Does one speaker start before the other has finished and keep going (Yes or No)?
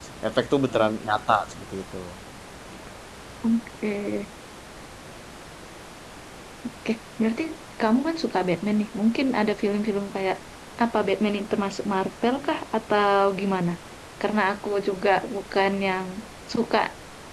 No